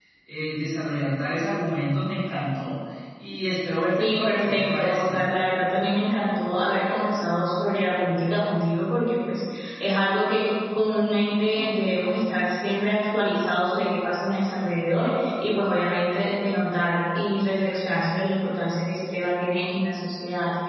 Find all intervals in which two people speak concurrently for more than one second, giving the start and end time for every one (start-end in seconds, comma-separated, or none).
4.0-5.2